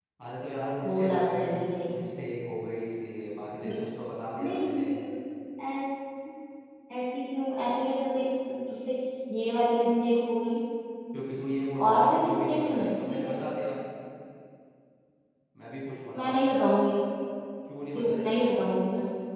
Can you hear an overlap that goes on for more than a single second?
Yes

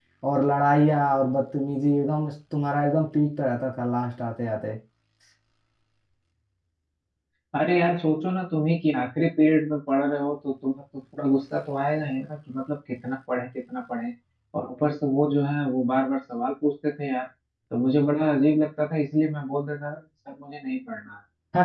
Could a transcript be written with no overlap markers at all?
Yes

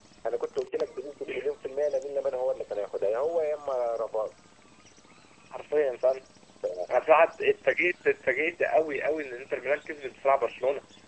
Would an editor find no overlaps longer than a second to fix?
Yes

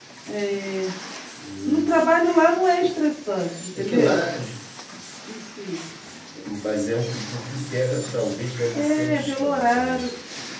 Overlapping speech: Yes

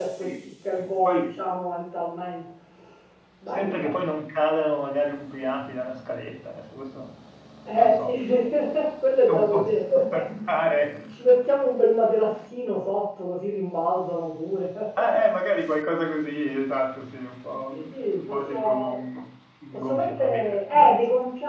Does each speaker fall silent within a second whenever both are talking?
No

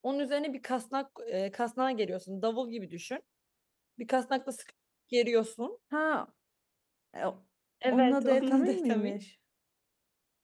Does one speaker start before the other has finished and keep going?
Yes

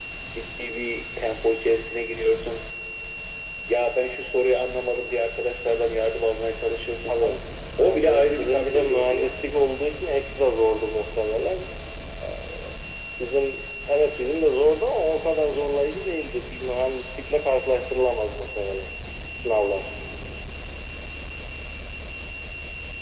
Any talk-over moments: Yes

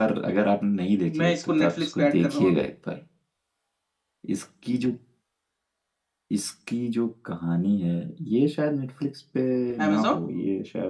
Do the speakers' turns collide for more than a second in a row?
Yes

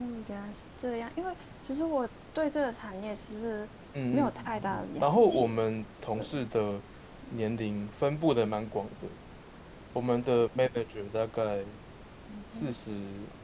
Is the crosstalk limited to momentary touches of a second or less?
No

